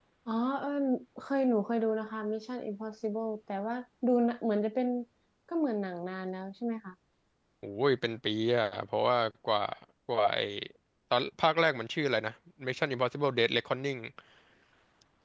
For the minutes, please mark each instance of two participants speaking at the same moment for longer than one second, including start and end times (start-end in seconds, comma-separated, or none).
none